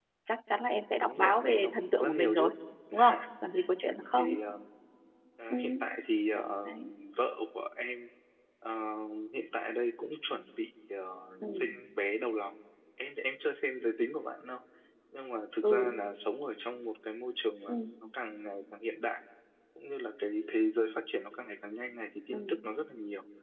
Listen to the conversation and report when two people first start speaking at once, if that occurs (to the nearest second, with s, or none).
1 s